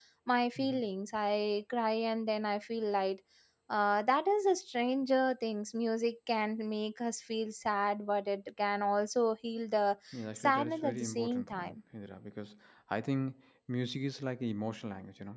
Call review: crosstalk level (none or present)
present